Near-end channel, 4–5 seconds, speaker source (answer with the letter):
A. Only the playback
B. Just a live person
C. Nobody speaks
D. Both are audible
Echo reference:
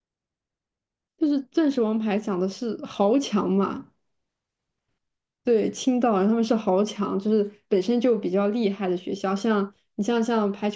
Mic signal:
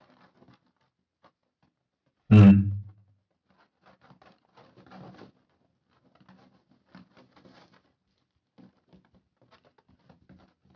C